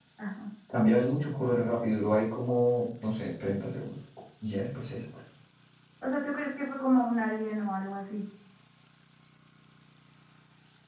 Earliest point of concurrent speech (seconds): none

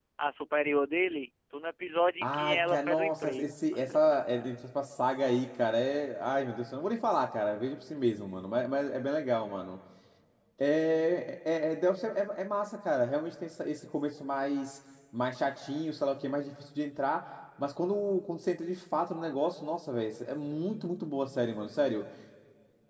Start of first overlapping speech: 2.2 s

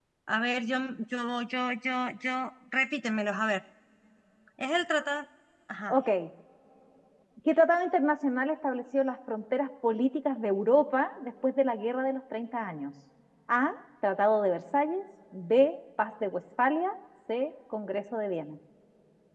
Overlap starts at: none

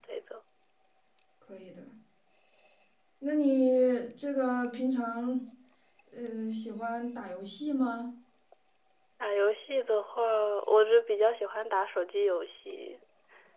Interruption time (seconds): none

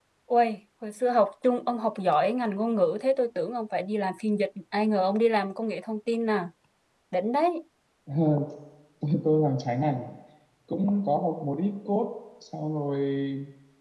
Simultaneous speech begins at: none

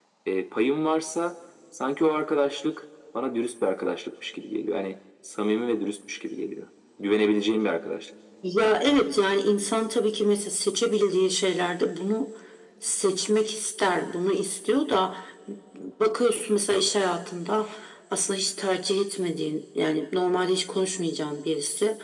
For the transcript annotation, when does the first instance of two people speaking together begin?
none

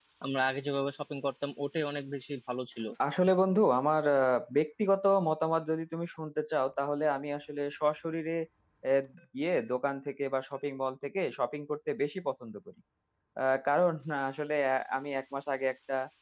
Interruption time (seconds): none

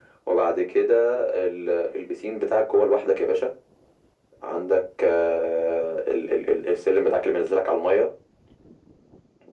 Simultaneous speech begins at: none

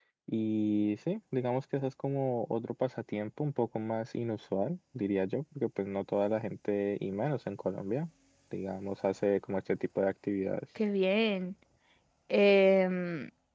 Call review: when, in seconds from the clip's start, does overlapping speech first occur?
none

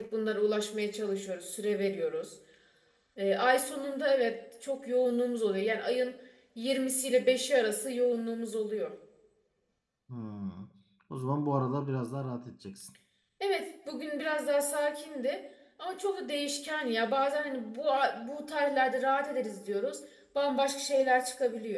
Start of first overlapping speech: none

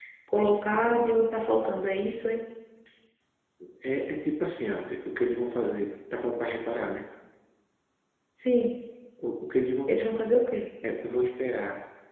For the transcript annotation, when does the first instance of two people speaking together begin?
none

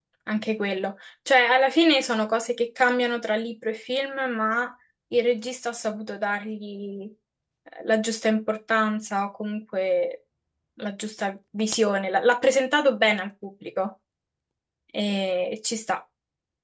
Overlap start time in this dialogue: none

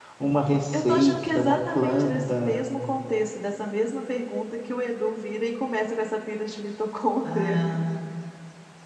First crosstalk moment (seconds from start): 0.7 s

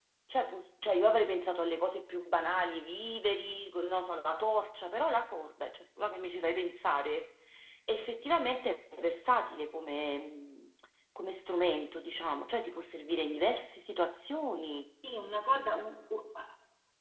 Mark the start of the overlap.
none

